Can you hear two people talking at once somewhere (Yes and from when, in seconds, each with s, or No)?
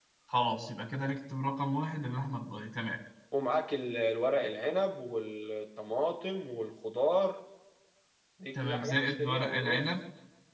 Yes, from 8.6 s